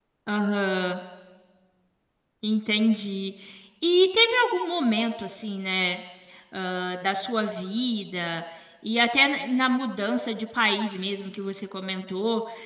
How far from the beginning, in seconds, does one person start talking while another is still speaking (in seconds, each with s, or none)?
none